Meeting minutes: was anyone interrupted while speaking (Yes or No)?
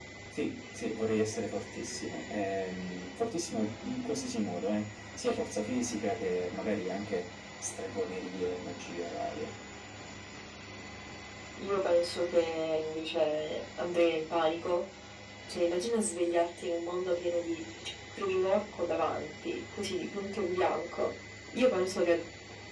No